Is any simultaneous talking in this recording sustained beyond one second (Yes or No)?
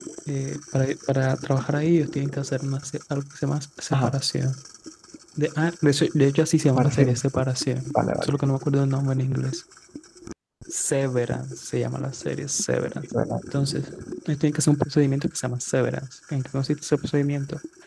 No